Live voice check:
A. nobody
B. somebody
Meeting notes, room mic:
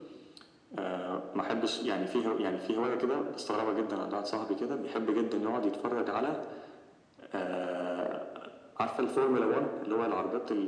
A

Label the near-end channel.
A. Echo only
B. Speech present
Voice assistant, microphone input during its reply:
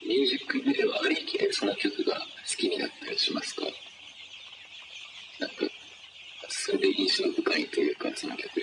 A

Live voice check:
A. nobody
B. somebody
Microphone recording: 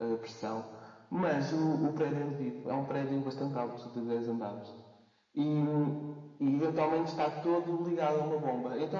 A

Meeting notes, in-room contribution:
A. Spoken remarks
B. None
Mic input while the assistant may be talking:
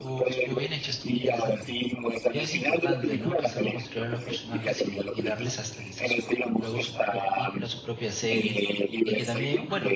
A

